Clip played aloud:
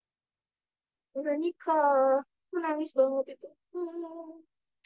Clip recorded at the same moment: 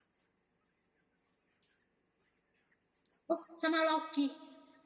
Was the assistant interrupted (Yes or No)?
Yes